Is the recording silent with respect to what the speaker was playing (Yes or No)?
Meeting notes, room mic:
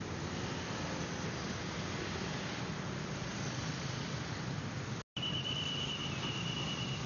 Yes